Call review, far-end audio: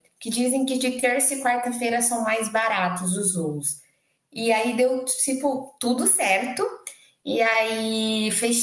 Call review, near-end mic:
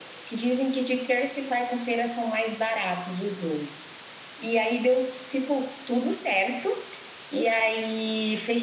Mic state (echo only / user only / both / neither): echo only